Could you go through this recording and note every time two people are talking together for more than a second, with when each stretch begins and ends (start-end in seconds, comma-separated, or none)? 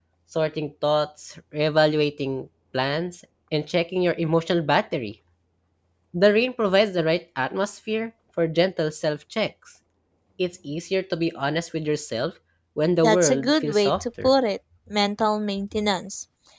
13.0-14.3